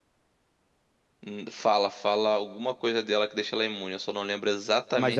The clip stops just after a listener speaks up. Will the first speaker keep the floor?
No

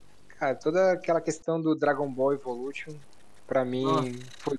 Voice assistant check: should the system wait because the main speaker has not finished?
Yes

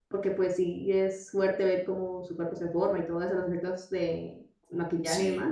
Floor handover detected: No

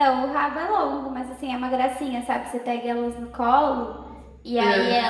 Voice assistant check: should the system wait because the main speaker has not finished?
Yes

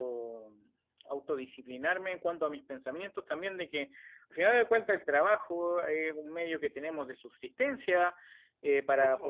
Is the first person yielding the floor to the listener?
No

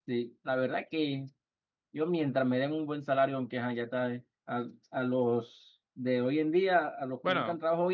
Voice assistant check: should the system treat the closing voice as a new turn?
No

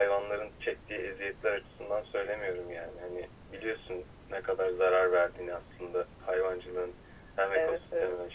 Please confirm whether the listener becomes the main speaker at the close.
No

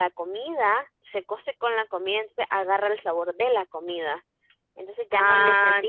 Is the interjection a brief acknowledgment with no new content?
No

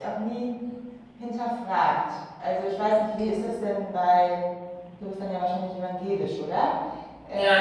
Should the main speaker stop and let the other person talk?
Yes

